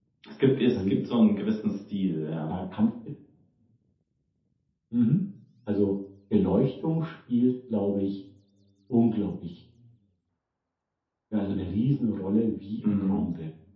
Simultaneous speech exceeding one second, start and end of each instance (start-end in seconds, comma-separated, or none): none